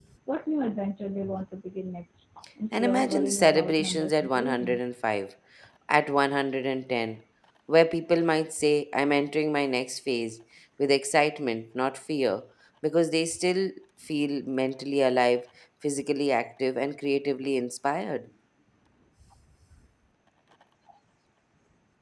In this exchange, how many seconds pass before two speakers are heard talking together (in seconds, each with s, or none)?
2.7 s